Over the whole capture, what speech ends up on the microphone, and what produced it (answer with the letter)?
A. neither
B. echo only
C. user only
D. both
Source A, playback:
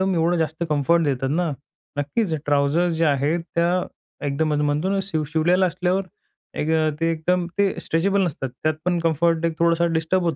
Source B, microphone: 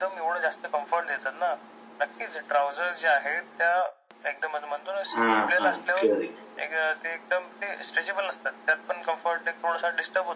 D